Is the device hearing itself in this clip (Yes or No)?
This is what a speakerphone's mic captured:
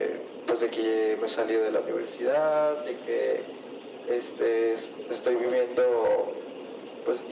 Yes